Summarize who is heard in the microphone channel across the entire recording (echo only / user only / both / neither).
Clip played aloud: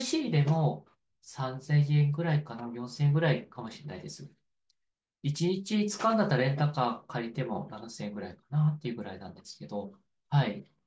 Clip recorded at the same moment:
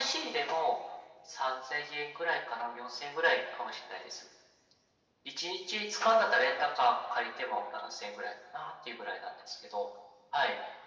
echo only